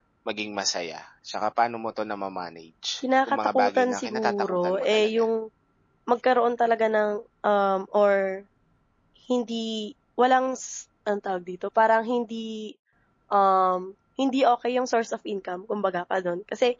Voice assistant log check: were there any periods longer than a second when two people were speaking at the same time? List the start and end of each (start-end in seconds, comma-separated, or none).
3.3-5.1